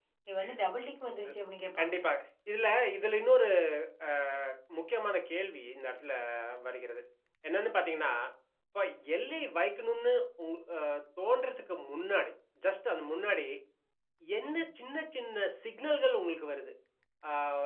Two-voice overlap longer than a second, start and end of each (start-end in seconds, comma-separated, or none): none